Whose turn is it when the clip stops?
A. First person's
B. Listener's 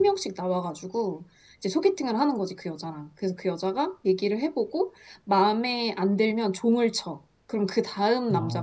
B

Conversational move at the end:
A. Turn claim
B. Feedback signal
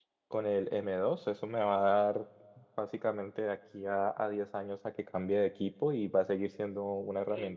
B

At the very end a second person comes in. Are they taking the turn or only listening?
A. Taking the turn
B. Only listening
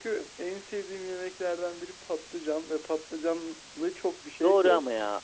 A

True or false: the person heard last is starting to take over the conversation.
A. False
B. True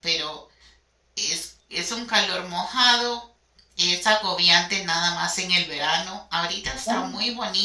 A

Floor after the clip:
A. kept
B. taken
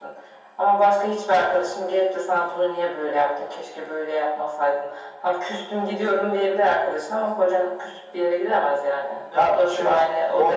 B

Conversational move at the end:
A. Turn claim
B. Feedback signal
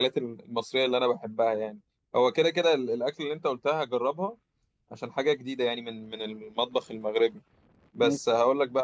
B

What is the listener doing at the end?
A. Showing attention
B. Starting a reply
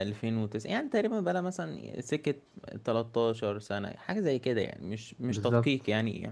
A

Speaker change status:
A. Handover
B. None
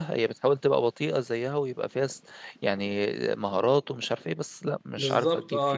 A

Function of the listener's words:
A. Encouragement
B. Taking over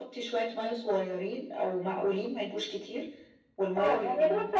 B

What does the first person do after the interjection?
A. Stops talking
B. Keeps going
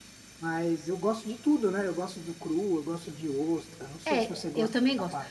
A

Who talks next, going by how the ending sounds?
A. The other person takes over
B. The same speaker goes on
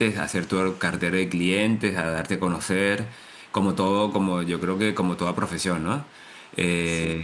B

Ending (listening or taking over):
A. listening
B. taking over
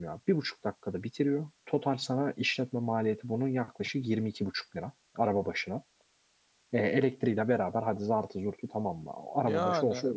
B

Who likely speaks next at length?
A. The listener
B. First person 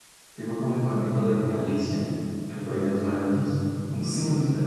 A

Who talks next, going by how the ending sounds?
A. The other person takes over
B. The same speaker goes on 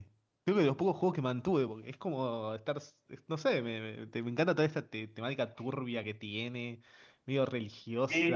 A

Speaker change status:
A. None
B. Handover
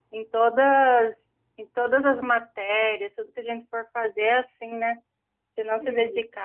A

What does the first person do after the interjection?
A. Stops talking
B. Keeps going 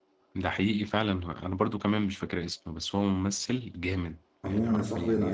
A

